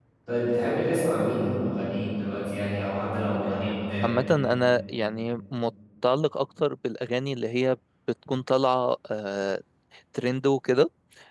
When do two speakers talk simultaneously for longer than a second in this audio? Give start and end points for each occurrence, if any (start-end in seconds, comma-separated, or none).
none